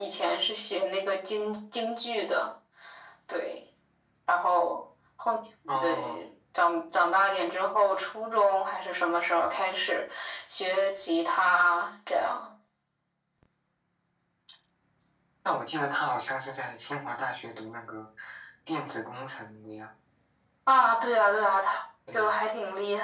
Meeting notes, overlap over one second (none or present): none